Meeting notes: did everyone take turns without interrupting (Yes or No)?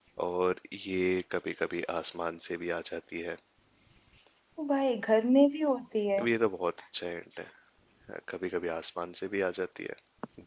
Yes